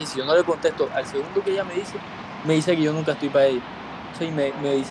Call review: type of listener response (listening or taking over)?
listening